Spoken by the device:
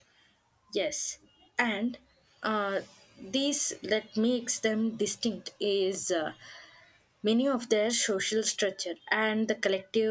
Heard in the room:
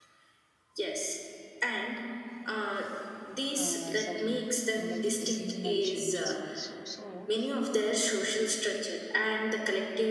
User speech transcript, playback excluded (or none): uh, some mm, like seasonal changes also so